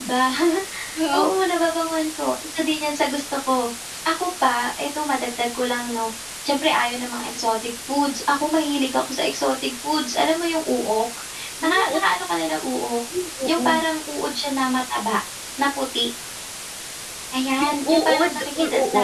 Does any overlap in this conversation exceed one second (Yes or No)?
Yes